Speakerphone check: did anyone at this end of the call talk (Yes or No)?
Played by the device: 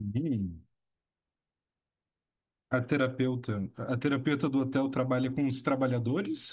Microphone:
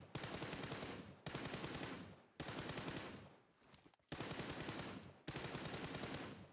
No